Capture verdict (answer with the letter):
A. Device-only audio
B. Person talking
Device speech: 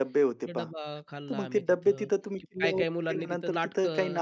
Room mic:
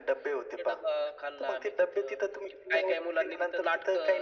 A